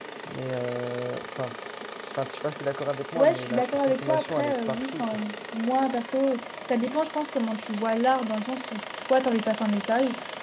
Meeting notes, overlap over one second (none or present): present